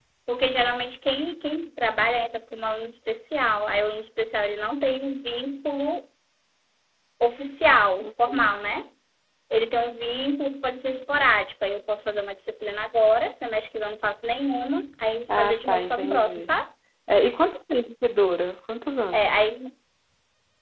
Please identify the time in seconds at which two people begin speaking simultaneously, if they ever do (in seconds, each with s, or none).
15.3 s